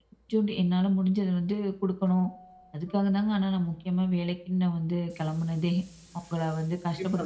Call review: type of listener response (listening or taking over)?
taking over